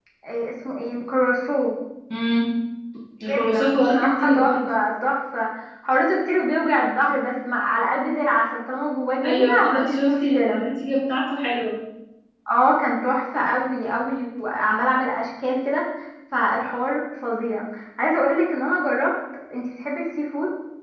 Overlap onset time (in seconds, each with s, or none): 3.3 s